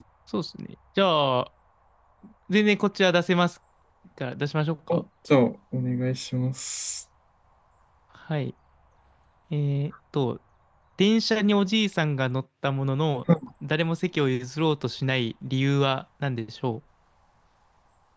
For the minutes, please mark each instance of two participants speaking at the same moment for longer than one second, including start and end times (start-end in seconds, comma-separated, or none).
none